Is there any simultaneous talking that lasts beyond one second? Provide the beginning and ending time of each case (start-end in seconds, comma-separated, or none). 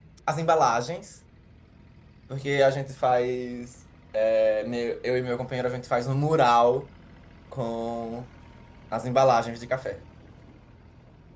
none